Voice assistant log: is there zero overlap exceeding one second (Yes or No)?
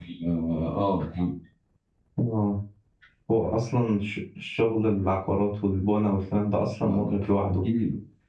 Yes